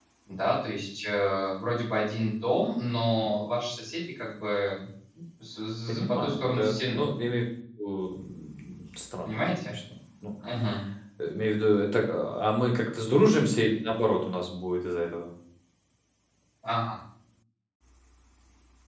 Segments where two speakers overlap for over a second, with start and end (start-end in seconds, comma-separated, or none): 5.9-7.1